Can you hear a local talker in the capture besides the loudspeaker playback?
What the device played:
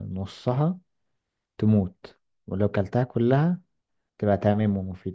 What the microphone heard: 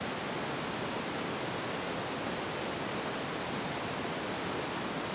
No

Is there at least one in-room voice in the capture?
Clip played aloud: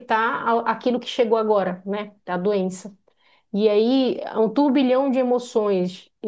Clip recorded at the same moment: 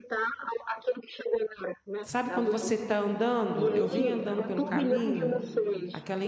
Yes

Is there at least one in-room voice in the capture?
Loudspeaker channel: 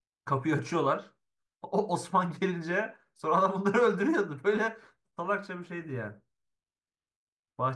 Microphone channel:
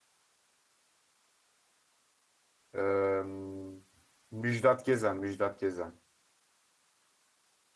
Yes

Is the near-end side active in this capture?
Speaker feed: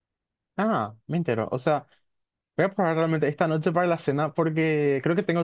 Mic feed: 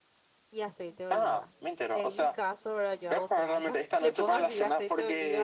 Yes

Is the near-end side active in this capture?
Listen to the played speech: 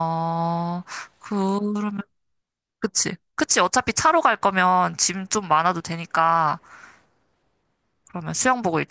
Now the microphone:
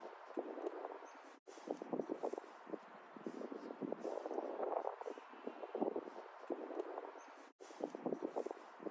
No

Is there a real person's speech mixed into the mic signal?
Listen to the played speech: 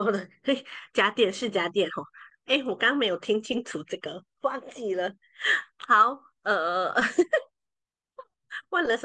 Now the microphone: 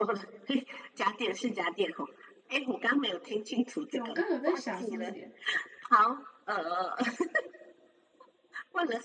Yes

